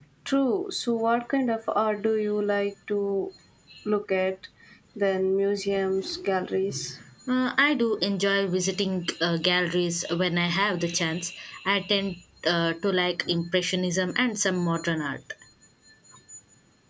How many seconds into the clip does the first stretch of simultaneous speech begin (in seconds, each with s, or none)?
none